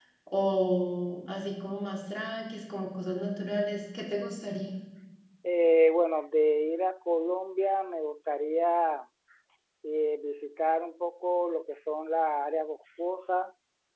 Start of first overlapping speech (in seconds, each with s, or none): none